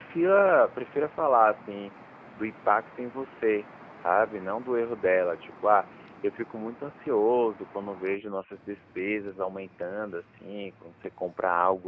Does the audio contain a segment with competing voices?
No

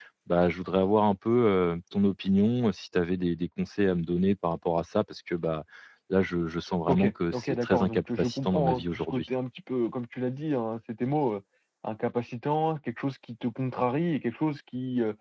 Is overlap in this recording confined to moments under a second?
No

